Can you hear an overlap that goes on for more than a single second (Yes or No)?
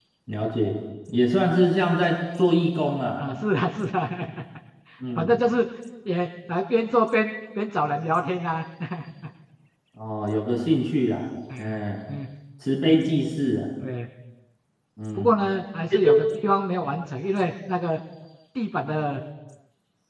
No